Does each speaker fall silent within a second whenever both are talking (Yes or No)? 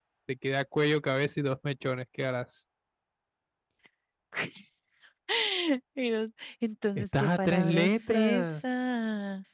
No